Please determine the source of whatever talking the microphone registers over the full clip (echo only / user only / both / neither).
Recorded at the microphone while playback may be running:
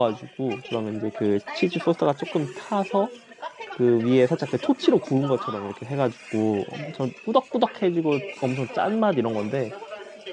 both